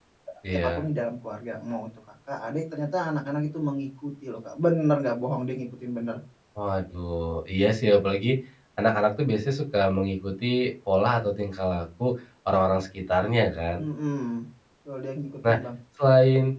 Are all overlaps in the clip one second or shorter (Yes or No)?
Yes